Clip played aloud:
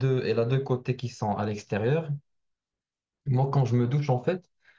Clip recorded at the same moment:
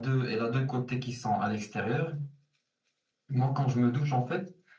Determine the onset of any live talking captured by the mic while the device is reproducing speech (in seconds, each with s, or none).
none